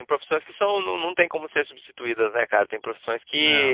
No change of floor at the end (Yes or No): Yes